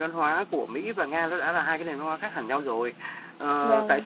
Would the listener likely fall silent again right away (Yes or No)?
Yes